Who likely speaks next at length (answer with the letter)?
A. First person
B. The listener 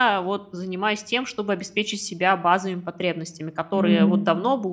A